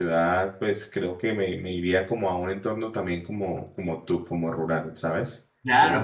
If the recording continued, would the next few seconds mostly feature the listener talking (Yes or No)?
Yes